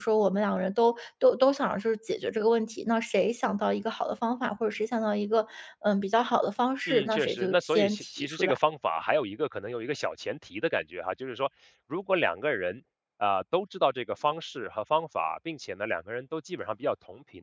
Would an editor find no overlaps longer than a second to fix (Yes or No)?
No